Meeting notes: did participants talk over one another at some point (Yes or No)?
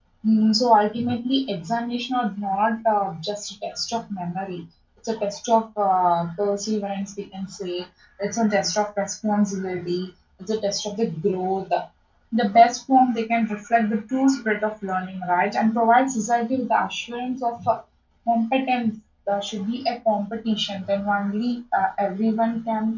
No